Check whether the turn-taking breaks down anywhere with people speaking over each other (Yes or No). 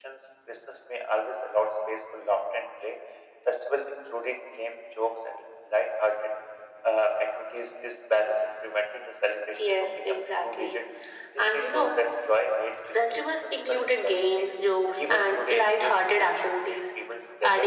Yes